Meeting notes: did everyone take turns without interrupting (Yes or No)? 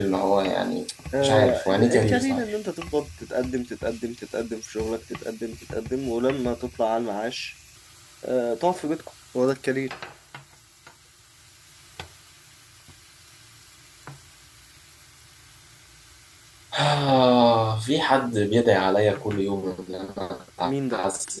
No